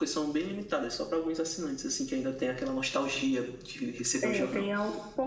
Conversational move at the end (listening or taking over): taking over